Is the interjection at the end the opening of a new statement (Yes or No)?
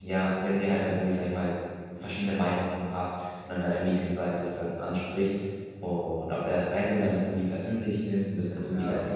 No